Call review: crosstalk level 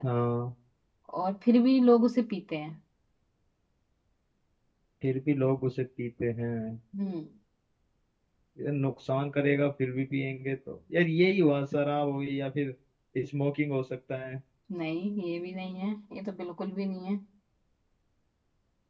none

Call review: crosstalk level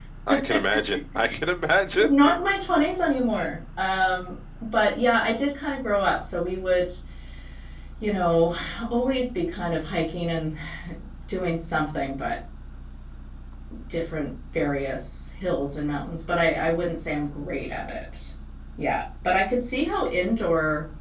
none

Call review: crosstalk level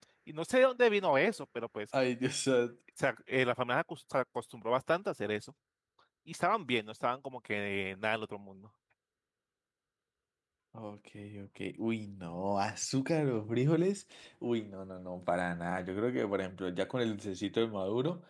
none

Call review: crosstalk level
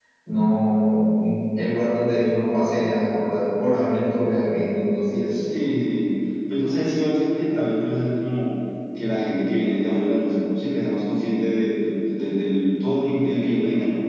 none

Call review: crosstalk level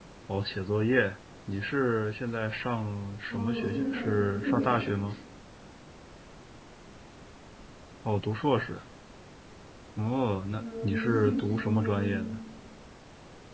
present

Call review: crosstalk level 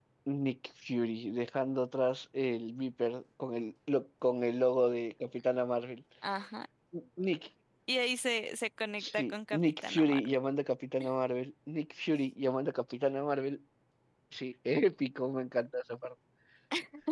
present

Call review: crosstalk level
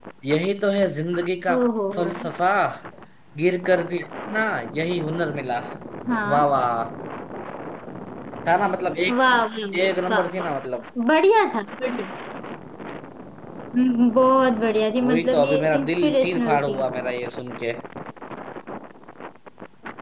present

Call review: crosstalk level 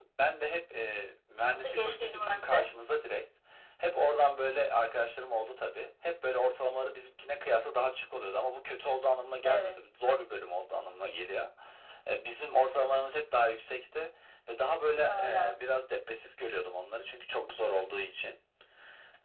present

